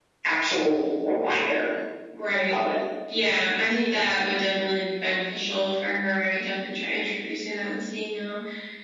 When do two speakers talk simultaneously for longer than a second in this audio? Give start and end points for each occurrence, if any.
none

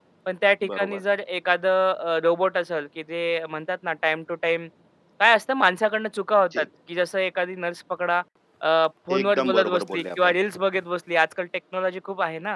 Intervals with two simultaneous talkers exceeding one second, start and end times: 9.2-10.3

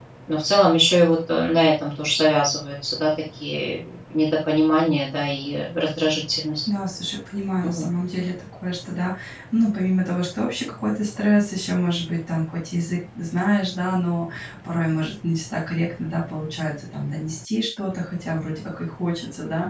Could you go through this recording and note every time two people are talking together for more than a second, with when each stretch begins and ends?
none

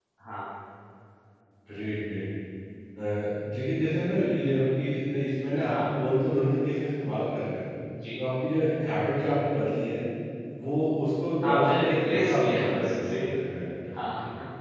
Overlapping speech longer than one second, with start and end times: 11.4-13.2

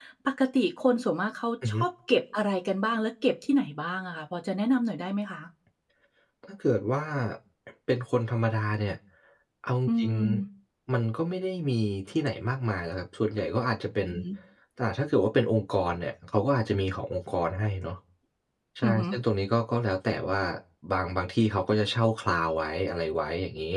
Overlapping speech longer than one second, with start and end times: none

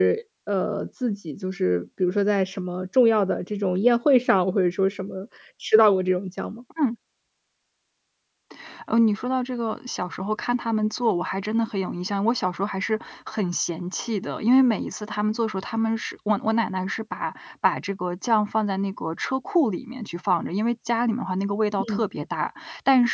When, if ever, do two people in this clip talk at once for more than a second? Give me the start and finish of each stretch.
none

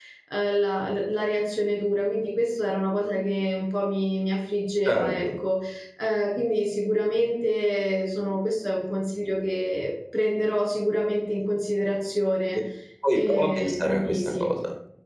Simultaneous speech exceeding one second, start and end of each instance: 13.1-14.5

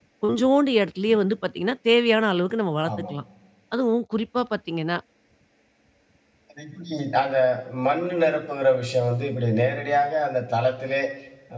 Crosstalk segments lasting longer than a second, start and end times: none

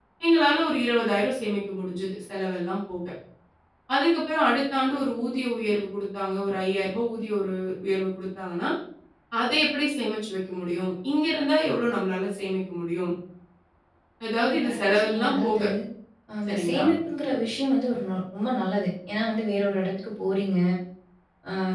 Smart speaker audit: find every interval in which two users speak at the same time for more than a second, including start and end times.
14.4-15.6

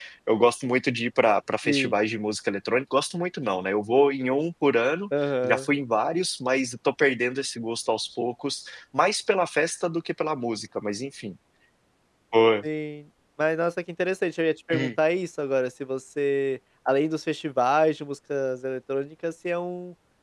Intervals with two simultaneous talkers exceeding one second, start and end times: none

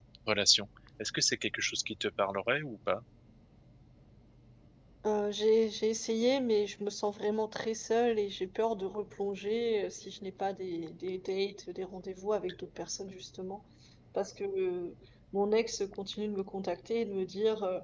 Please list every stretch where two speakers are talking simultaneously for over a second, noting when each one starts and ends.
none

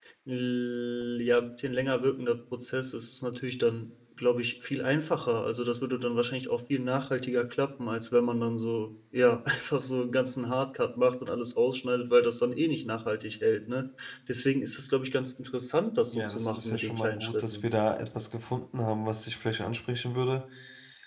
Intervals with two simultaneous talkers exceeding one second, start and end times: 16.1-17.6

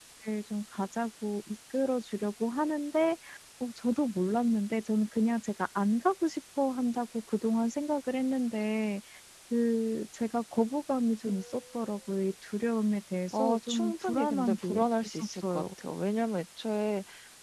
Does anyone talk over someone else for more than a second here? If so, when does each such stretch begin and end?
13.3-15.6

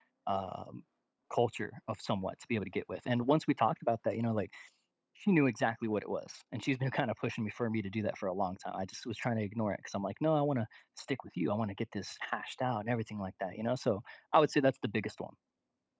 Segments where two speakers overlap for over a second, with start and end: none

